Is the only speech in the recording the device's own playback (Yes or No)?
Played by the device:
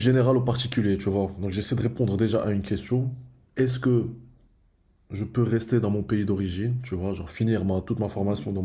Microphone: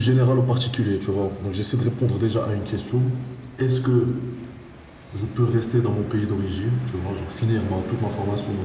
Yes